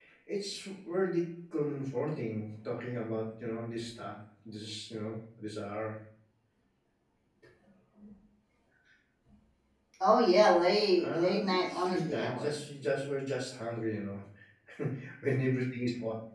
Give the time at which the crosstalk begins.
11.0 s

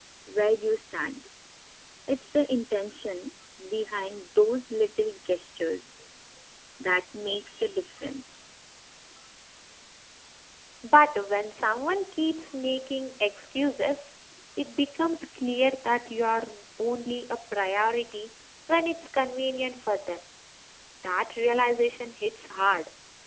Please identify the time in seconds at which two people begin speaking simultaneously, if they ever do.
none

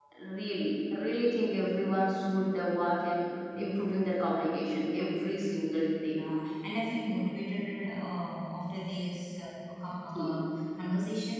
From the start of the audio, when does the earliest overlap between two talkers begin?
none

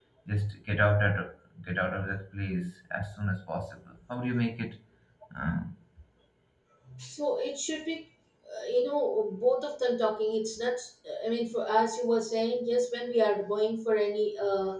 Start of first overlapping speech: none

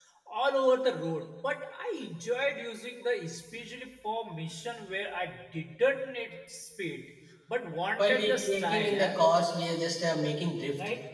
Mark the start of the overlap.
8.0 s

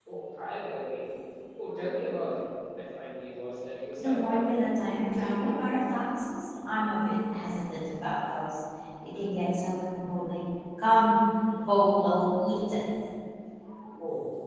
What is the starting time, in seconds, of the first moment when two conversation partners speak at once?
4.0 s

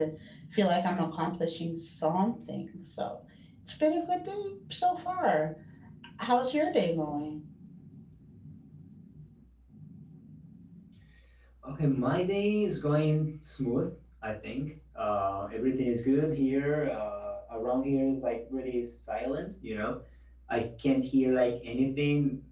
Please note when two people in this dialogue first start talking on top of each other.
none

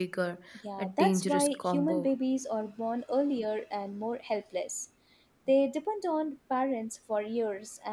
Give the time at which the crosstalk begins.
0.8 s

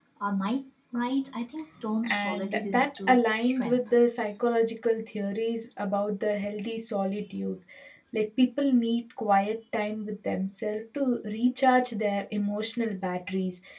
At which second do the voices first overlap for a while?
2.0 s

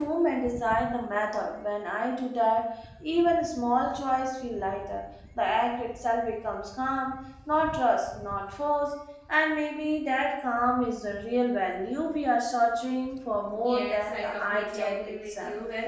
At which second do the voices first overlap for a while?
13.6 s

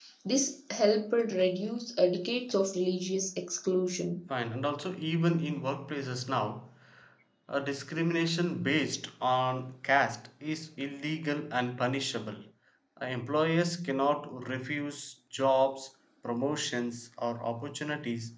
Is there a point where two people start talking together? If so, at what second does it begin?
none

